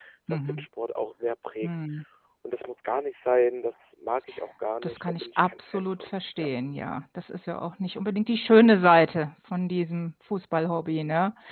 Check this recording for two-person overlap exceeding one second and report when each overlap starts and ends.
4.8-6.5

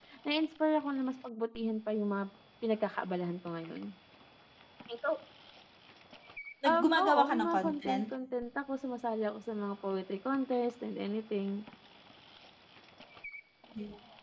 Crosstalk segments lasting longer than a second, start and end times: 6.6-8.0

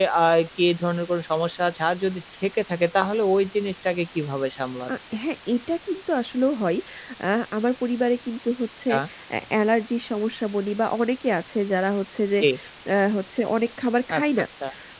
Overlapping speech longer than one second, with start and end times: none

